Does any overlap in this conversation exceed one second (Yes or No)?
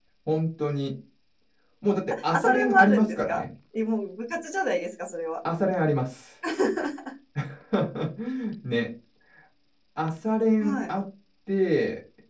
Yes